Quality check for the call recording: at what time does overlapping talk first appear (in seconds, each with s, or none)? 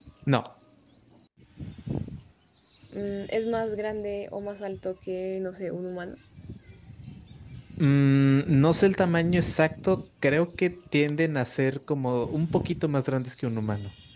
none